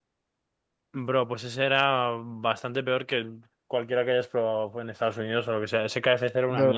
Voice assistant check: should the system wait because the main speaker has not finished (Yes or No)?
No